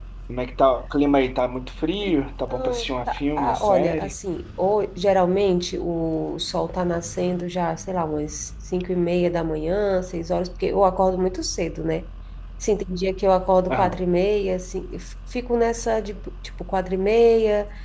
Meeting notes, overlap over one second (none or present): present